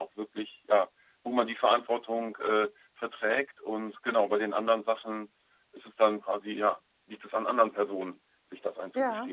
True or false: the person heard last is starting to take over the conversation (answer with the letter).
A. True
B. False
A